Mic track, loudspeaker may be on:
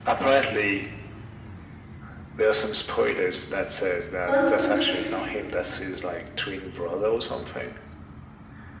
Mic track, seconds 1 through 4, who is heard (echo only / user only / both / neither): echo only